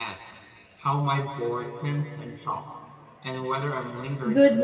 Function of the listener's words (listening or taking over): taking over